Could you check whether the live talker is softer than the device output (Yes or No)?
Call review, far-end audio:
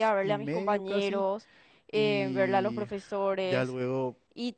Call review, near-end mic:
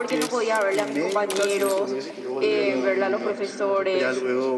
Yes